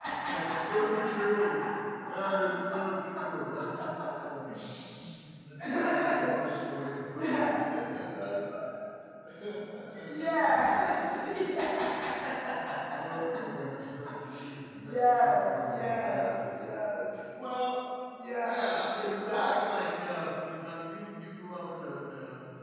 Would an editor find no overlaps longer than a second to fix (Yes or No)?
No